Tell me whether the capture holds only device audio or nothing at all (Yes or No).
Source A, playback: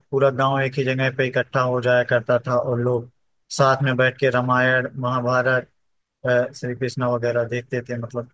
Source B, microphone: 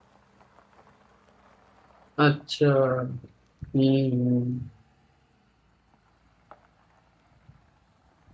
No